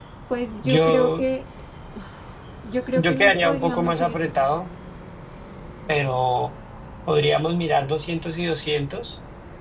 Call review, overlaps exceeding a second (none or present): present